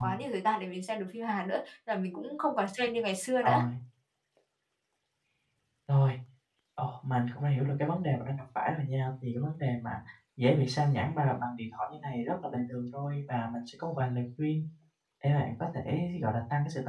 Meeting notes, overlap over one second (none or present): none